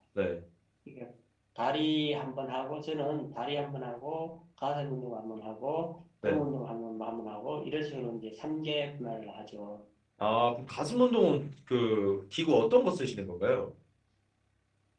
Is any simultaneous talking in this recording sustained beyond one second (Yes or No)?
No